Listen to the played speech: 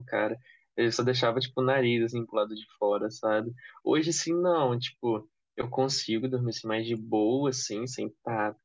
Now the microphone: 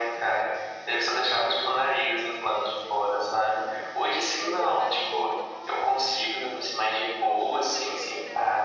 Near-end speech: present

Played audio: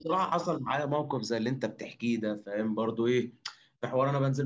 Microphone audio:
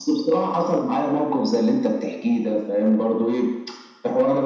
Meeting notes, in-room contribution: none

